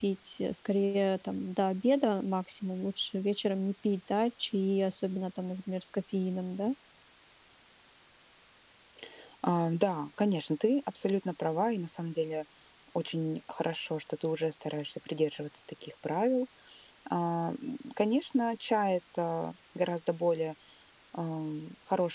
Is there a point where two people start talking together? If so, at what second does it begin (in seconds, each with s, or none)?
none